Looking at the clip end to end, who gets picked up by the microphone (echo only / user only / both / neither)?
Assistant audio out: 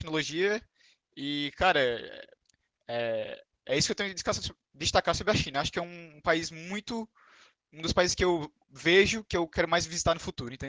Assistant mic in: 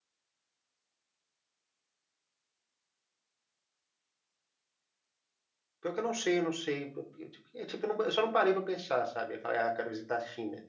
user only